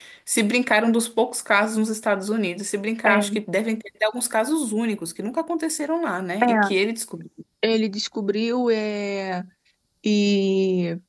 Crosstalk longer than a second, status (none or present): none